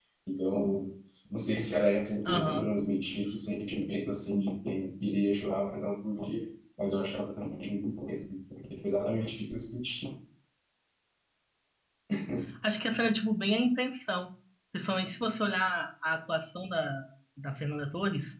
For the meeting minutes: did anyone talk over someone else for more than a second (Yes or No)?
No